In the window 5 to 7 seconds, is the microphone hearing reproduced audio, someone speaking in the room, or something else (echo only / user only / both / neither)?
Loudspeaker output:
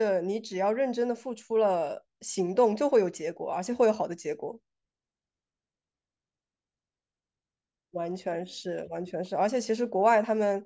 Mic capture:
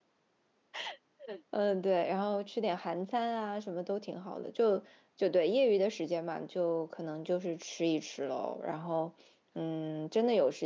user only